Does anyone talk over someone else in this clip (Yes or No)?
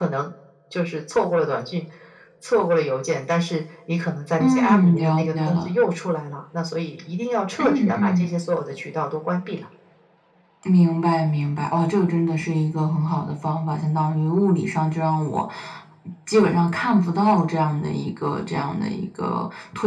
Yes